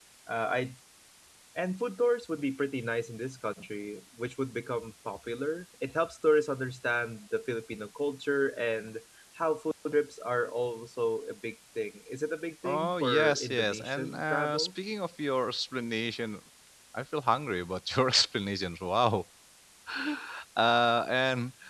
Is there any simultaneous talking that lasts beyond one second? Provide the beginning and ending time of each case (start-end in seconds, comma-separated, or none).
12.6-14.7